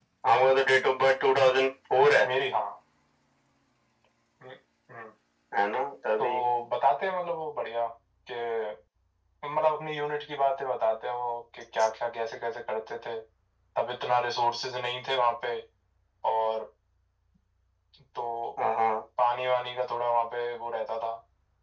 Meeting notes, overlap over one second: none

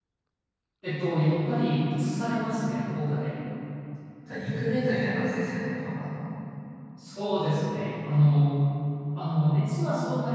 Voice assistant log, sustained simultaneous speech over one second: none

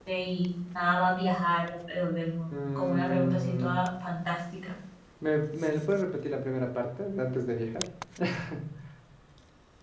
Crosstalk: present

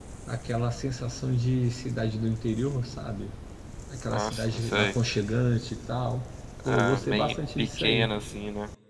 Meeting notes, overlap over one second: present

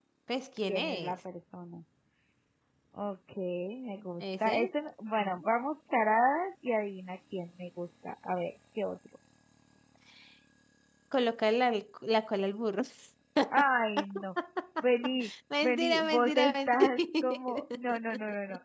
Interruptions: present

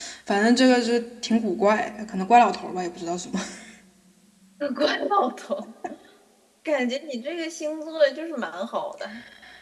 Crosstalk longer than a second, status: none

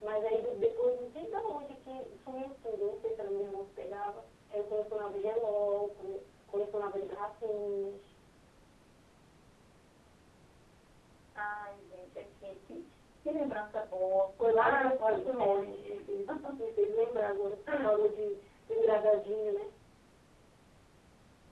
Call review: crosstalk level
present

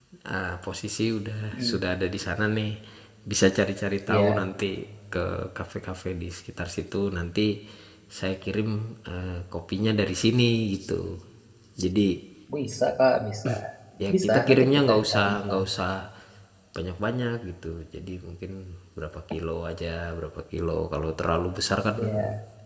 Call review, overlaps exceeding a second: present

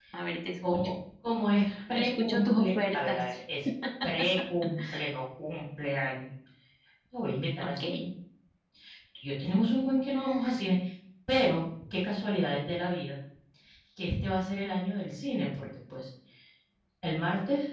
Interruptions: present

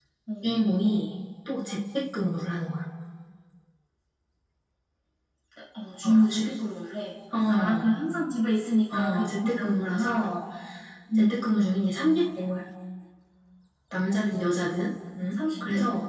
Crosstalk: present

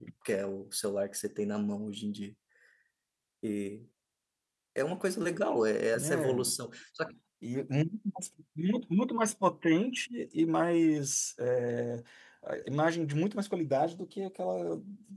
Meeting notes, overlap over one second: none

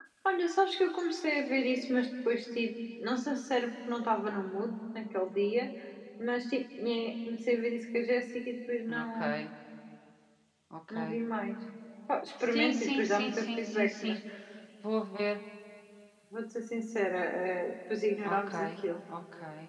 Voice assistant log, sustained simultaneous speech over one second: present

